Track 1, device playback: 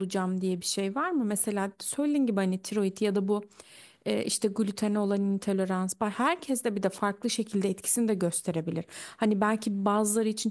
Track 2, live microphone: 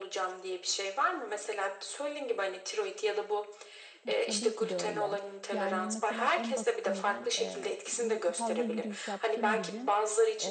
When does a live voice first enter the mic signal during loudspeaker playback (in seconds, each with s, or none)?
4.0 s